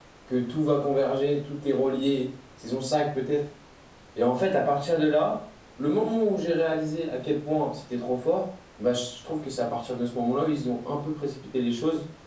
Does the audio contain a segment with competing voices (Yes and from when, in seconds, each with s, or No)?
No